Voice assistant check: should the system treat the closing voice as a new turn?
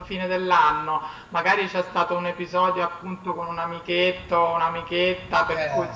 No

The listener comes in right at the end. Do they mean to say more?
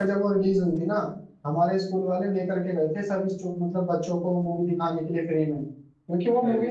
No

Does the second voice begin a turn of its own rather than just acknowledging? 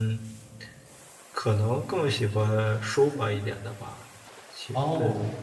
No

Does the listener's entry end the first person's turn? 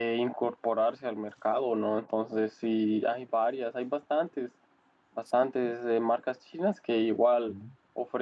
No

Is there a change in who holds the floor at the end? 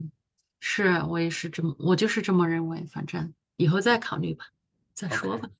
Yes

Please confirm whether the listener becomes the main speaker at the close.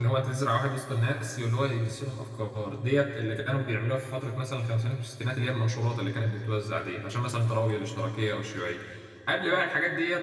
No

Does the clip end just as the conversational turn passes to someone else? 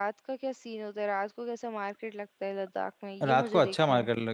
Yes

